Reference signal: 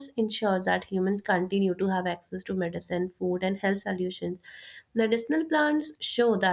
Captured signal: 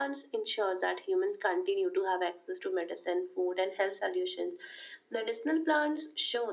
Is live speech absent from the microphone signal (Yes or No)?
Yes